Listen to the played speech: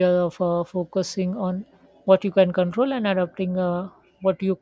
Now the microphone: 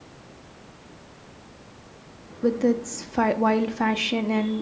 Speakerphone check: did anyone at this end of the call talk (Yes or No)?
Yes